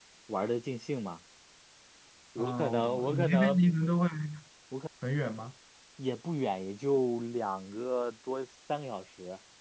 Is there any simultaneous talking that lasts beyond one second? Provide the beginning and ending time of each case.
2.4-3.8

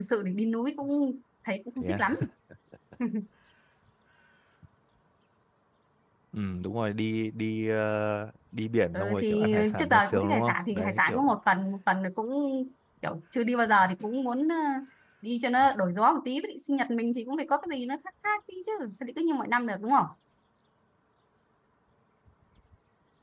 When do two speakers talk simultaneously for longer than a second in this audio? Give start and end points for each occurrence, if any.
8.9-11.3

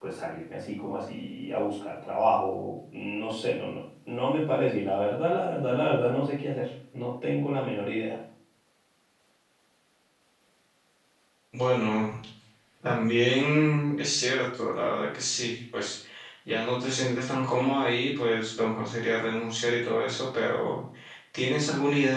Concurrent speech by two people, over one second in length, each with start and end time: none

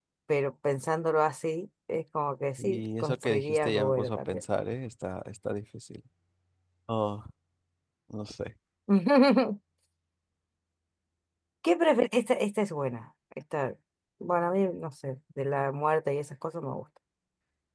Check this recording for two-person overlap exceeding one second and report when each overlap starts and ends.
2.6-4.4

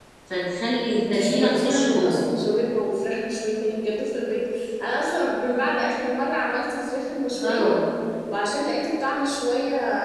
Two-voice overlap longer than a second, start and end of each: 1.0-2.2

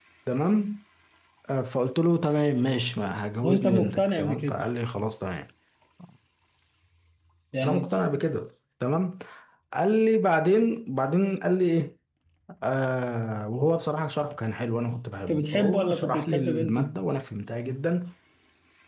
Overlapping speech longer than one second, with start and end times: 3.4-4.6, 15.3-16.9

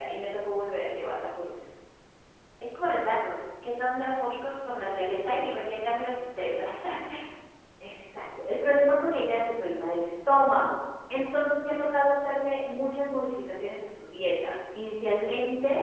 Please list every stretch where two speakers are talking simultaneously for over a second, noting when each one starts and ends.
none

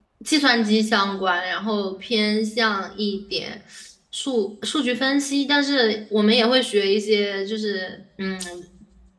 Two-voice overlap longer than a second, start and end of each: none

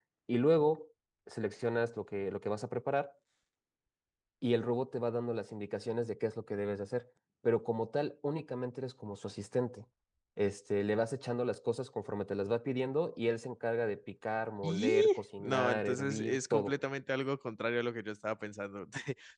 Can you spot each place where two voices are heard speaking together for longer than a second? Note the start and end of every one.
15.4-16.8

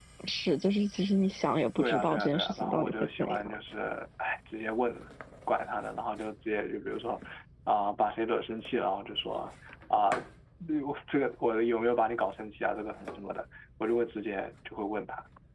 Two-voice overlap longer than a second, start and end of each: 1.8-3.5

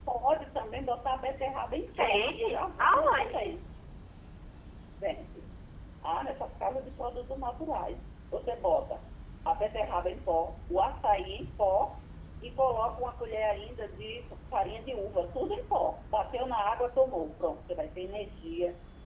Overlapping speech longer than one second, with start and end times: 1.9-3.6

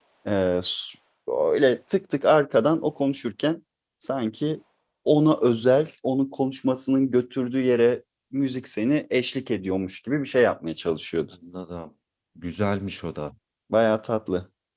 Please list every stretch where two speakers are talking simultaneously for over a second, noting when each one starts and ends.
none

